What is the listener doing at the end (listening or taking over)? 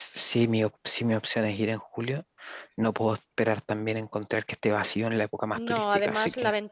taking over